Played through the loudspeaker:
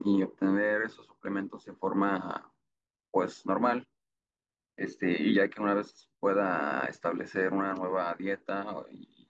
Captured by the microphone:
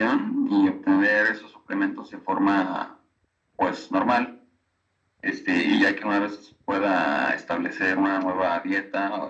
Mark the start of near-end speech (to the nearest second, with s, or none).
none